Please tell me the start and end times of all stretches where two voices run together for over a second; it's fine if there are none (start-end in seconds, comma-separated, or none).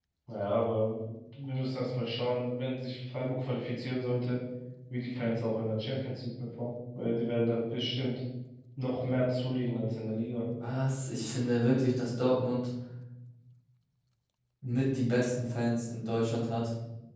none